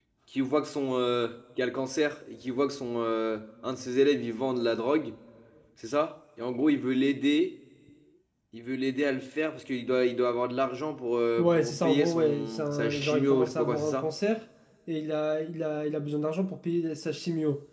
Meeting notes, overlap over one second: present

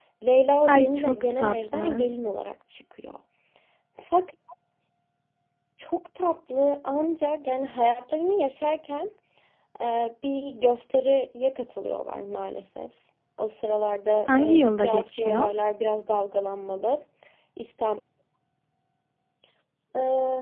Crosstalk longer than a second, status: present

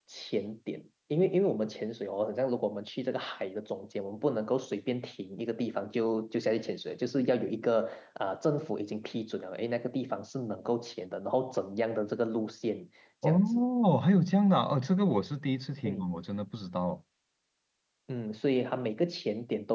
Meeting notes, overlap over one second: none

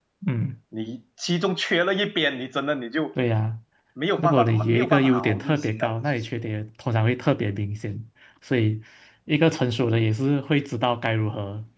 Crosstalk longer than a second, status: present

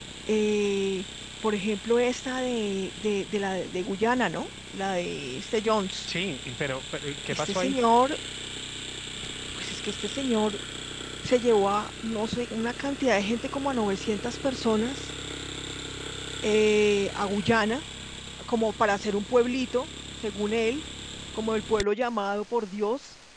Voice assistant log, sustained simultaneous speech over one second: none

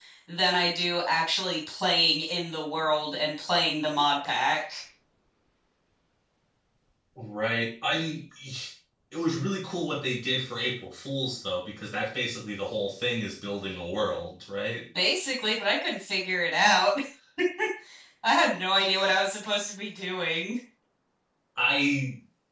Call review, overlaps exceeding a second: none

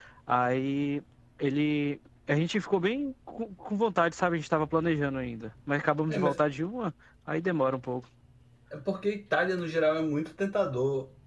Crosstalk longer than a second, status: none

